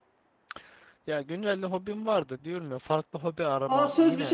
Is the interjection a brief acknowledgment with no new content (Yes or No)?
No